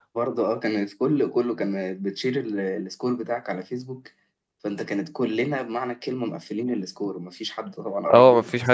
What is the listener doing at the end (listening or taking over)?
taking over